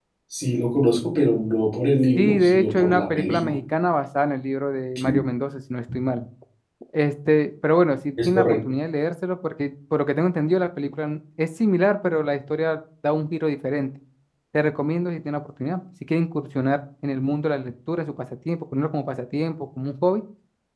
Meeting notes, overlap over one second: present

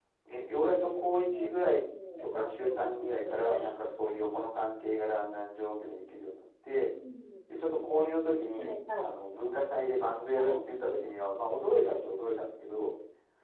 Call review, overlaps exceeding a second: present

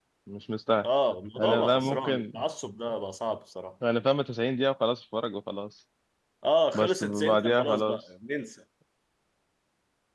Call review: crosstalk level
present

